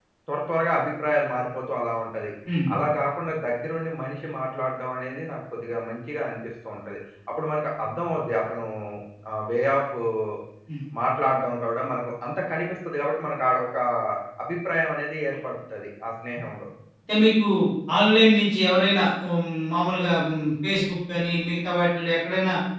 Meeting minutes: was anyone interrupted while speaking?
No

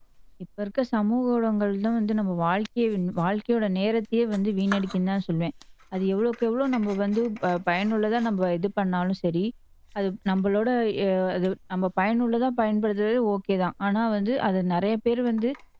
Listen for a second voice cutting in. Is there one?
No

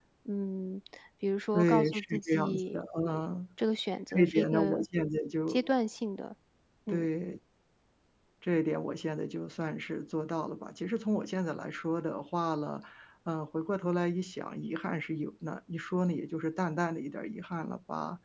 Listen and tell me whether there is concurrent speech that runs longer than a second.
Yes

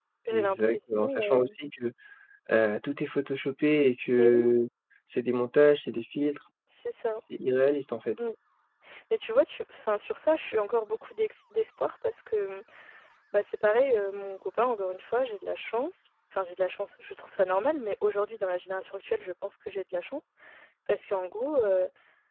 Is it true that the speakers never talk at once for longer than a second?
No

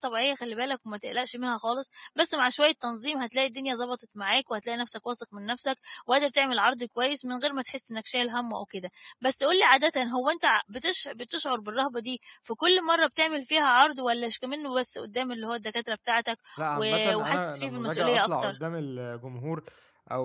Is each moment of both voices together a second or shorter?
No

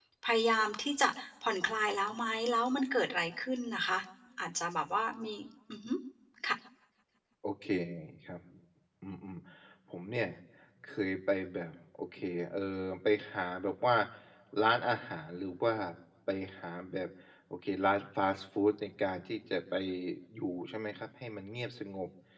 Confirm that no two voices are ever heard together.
Yes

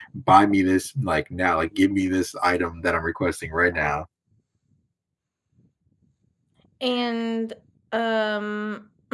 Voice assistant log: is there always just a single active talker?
Yes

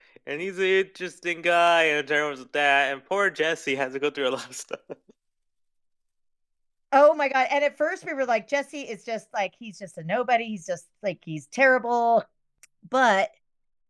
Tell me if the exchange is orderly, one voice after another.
Yes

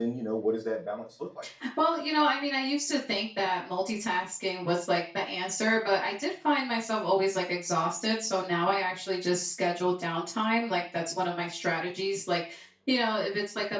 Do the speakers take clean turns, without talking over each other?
Yes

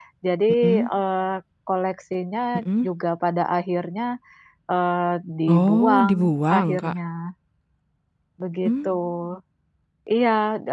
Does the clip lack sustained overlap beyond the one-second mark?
No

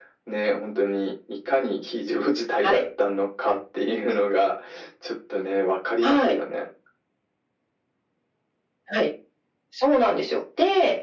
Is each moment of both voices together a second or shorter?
Yes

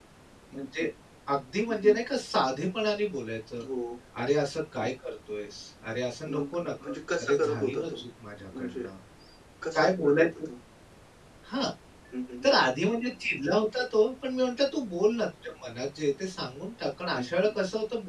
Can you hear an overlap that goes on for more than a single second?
Yes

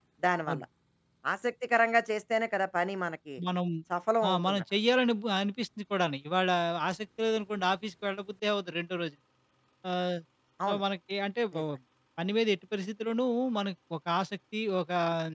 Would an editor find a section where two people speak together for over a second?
No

